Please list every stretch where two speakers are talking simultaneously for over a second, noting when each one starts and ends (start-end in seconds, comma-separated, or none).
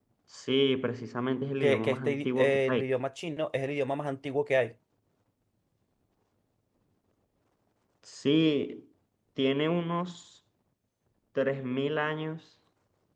1.6-2.8